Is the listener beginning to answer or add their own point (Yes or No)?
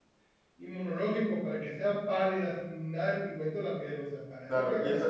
Yes